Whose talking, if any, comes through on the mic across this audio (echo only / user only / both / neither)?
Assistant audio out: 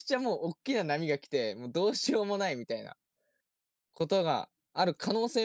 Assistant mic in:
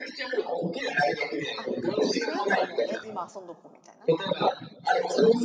both